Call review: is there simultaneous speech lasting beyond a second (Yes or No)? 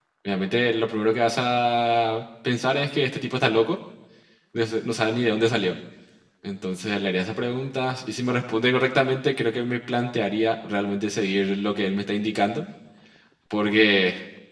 No